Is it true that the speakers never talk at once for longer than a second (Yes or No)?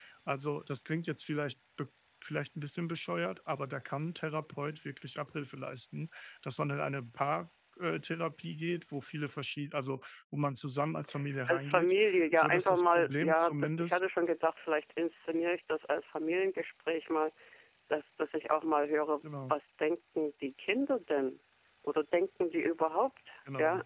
No